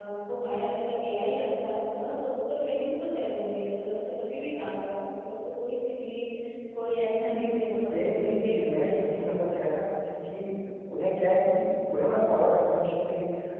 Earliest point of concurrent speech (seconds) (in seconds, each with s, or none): 7.9 s